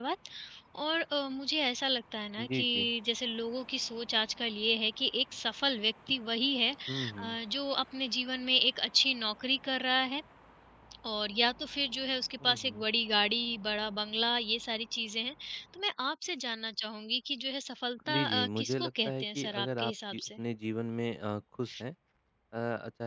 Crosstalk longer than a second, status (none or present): present